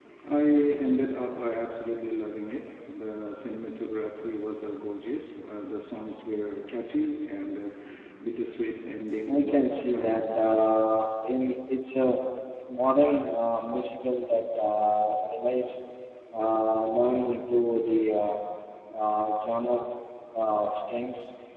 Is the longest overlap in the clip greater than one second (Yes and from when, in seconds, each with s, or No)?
Yes, from 9.3 s